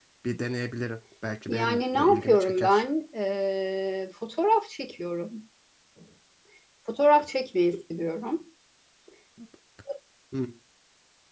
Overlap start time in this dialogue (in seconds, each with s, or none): 1.5 s